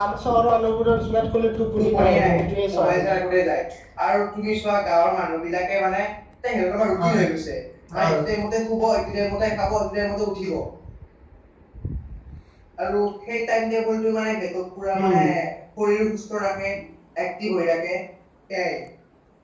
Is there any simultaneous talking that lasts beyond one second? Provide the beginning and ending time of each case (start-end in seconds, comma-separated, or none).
1.8-3.1